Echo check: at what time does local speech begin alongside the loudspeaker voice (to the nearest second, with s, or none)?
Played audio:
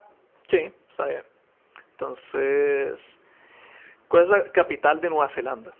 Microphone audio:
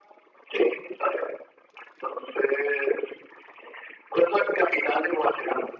none